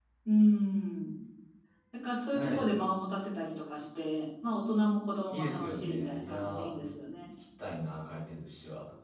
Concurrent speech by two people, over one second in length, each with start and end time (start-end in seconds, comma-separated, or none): 5.3-6.8